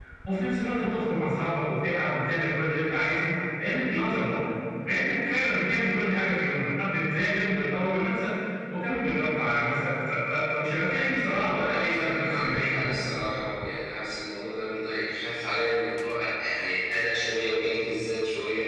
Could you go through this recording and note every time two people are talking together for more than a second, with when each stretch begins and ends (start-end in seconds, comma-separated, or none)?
11.6-12.9